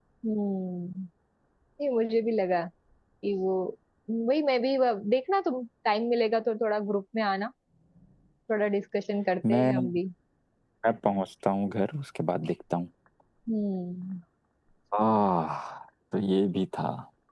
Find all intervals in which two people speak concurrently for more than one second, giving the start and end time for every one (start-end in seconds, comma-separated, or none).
none